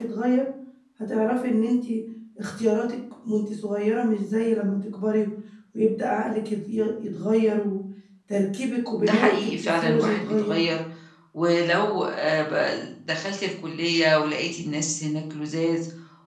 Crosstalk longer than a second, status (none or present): present